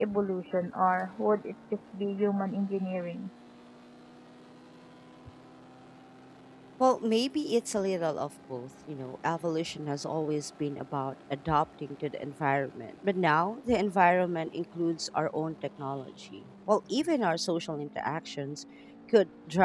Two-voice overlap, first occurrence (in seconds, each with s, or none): none